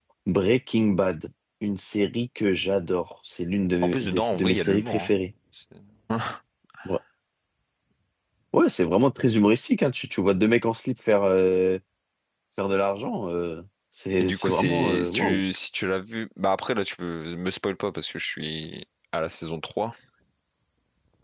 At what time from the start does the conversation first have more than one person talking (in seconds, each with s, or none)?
3.8 s